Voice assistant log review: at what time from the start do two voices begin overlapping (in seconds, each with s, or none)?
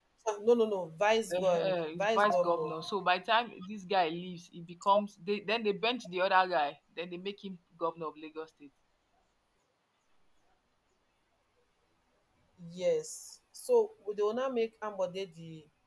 1.3 s